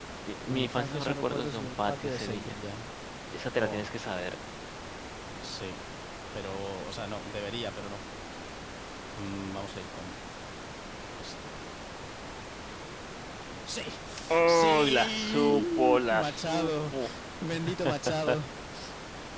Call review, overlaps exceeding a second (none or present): present